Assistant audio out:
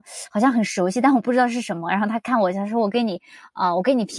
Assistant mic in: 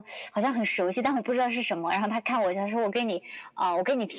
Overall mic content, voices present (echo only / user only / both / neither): echo only